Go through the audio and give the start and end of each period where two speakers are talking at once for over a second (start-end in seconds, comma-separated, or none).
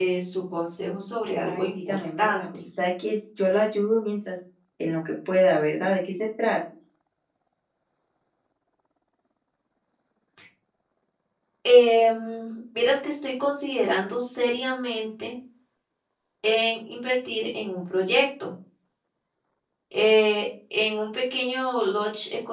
1.4-2.6